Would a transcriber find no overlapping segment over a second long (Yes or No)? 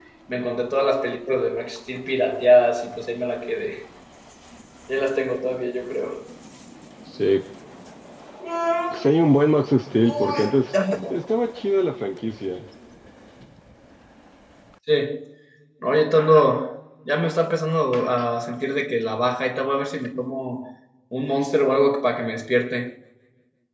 Yes